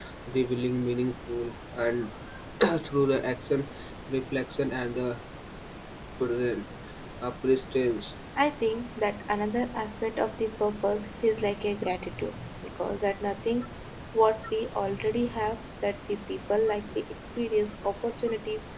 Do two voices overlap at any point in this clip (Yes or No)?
No